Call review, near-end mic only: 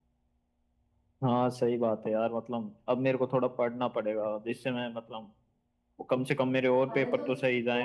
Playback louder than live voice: Yes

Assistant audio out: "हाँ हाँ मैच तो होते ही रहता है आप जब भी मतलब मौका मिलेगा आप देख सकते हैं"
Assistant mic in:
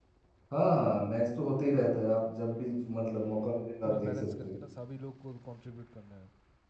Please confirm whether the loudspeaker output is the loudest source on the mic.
Yes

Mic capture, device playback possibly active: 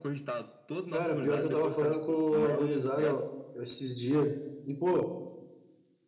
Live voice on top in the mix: Yes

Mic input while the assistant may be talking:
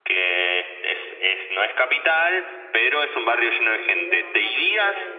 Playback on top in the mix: Yes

